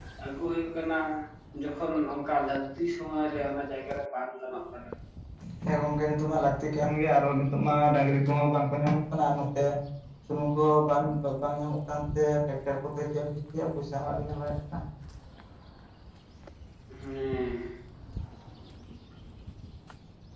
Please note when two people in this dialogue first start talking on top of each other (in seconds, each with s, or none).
none